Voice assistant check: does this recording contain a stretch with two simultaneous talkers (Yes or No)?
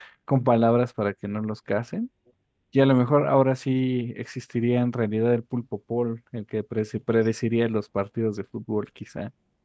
No